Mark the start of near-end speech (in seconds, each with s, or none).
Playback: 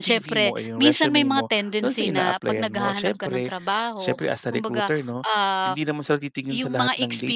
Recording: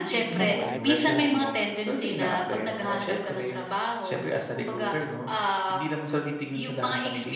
0.3 s